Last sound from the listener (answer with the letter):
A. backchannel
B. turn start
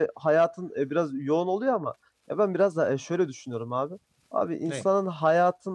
A